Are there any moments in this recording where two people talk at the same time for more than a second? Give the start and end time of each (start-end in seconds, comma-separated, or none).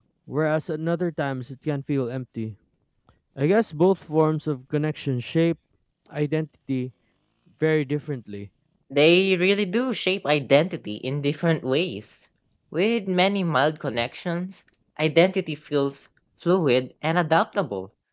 none